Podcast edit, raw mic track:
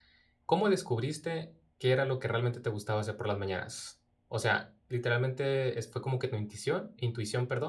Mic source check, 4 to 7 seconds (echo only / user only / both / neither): user only